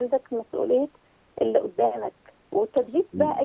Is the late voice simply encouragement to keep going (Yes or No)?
Yes